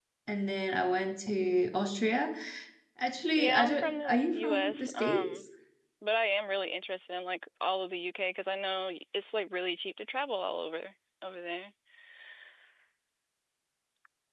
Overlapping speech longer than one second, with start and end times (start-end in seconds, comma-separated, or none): 3.4-5.3